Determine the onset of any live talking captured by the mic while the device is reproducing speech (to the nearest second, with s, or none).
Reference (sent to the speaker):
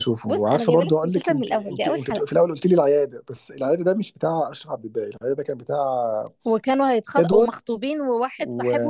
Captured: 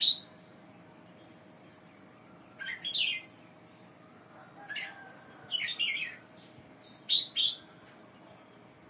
none